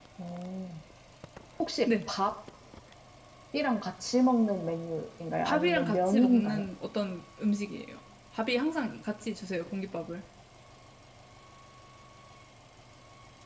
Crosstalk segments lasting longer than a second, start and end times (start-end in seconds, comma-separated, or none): 5.5-6.7